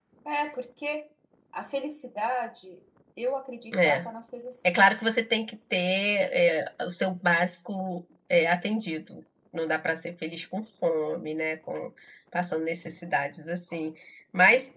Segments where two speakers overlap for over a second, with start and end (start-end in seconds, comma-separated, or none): none